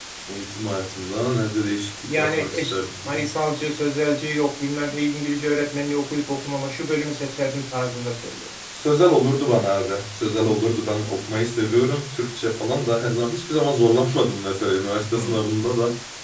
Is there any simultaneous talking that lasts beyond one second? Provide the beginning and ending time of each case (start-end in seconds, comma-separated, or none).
2.1-3.3